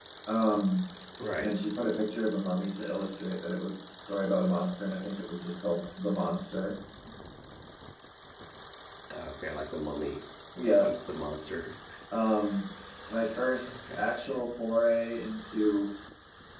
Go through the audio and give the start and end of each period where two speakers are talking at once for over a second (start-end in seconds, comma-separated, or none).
none